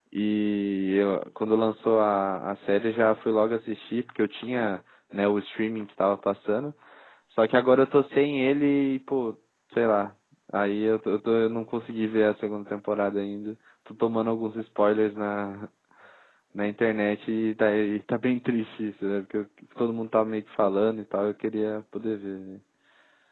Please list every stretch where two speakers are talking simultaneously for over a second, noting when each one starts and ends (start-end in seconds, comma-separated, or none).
none